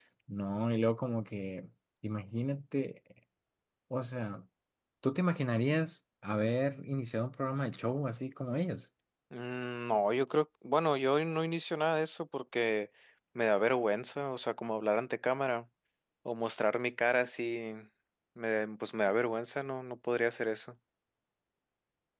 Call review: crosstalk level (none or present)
none